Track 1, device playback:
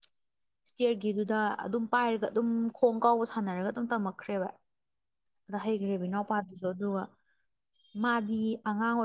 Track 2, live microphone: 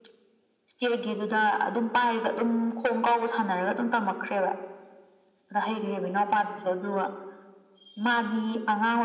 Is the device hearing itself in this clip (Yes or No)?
Yes